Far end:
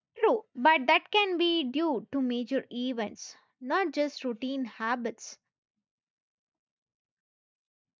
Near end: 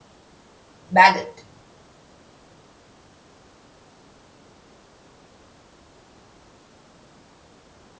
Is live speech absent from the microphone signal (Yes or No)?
No